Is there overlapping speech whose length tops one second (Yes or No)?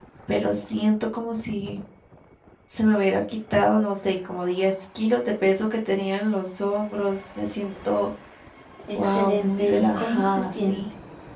Yes